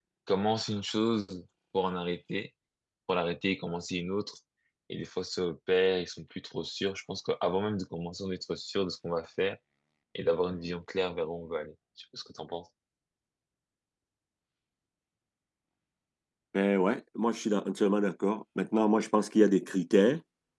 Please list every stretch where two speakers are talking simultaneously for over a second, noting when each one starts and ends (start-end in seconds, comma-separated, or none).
none